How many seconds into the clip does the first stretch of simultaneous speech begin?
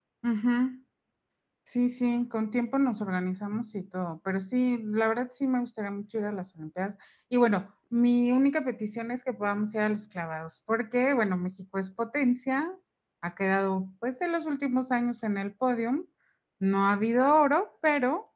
none

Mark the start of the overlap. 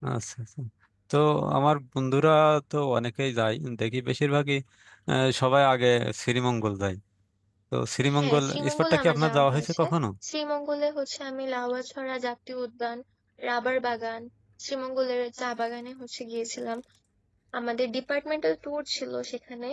8.2 s

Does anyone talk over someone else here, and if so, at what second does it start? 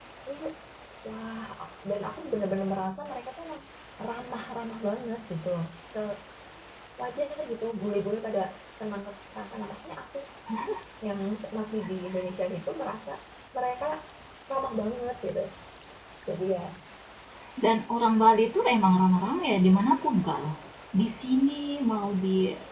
none

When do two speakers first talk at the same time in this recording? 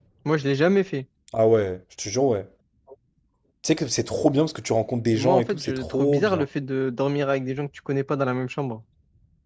5.1 s

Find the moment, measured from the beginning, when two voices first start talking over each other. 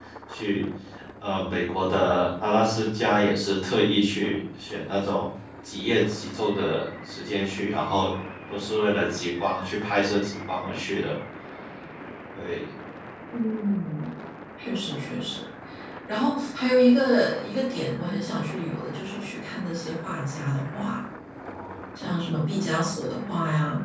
none

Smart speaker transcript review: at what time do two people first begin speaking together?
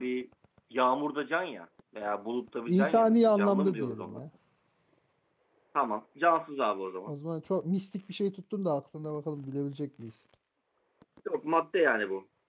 2.7 s

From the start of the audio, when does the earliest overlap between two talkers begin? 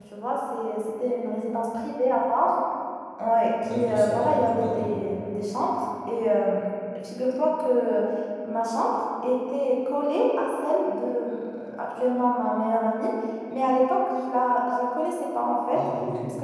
3.6 s

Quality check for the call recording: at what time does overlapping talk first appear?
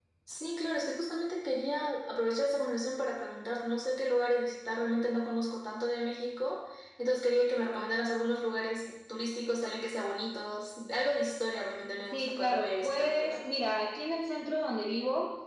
12.1 s

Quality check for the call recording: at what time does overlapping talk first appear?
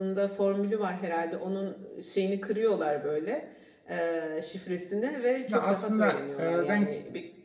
5.5 s

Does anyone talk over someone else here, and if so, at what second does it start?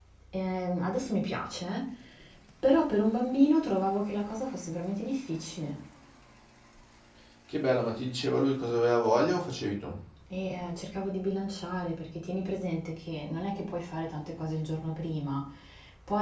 none

